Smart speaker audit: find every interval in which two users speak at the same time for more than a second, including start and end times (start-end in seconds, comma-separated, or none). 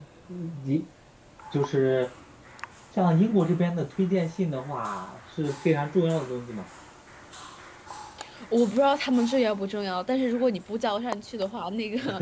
none